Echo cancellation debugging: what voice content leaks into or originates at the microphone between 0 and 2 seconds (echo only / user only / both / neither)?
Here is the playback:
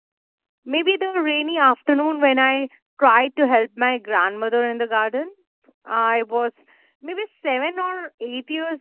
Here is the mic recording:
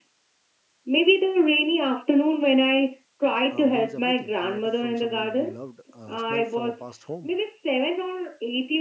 echo only